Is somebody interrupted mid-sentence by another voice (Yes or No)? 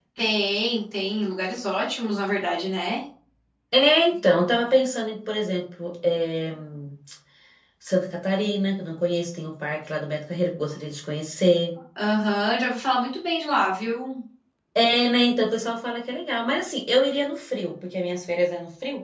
No